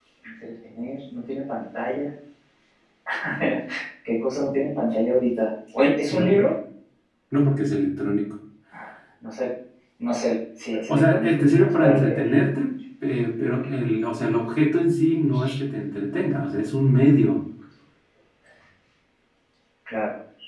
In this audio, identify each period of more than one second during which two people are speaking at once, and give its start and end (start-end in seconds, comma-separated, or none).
10.9-12.2